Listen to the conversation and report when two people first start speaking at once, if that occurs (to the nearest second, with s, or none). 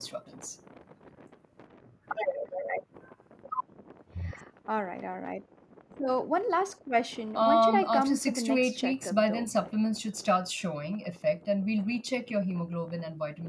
7 s